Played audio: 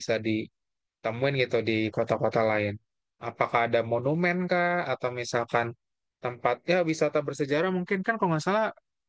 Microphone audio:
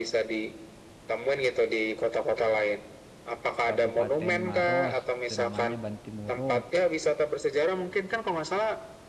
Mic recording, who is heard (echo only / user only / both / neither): both